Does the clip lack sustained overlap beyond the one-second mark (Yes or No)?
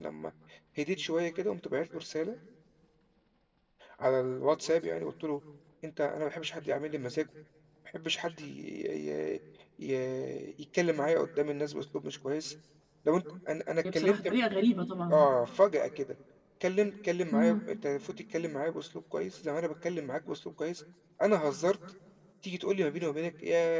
Yes